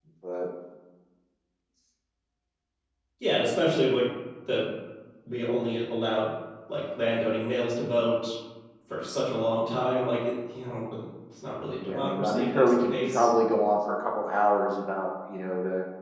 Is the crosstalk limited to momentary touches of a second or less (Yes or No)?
No